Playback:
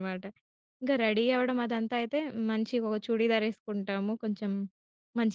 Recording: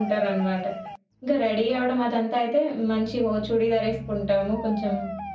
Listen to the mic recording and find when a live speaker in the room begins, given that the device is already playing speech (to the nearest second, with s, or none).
none